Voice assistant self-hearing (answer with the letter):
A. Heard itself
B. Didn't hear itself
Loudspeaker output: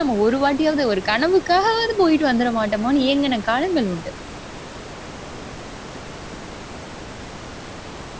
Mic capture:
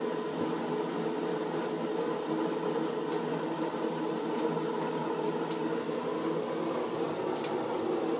B